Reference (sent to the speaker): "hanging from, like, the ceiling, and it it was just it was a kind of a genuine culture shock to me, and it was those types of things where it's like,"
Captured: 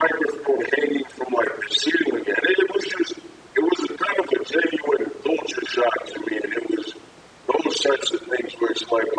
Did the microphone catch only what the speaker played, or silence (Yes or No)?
Yes